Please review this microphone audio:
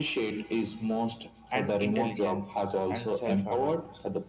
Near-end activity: present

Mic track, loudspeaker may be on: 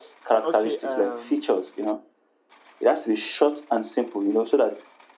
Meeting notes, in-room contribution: present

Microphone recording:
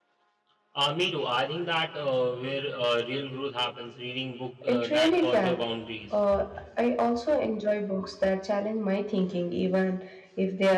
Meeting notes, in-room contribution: present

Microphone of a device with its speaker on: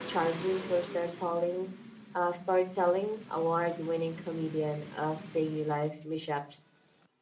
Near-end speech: present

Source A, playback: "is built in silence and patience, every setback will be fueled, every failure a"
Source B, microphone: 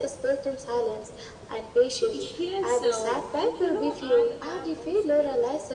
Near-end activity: present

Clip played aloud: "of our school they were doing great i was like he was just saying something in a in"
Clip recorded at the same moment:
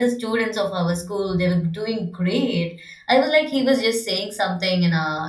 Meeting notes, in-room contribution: none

